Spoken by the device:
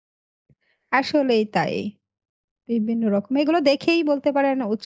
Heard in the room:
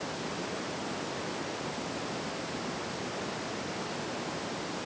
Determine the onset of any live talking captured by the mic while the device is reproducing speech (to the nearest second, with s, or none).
none